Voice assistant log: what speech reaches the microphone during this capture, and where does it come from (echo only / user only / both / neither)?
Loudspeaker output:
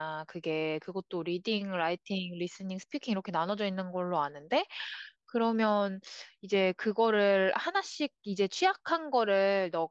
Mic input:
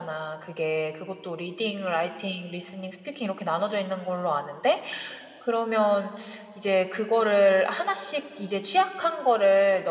echo only